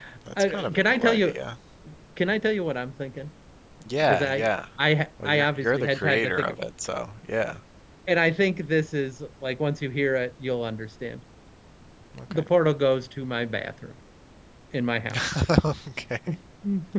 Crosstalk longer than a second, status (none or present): present